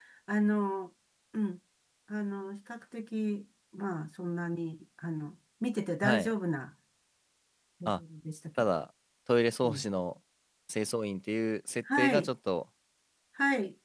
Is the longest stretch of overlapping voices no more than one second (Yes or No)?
Yes